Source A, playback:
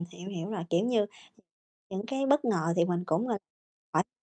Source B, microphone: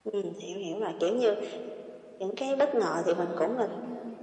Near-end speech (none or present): present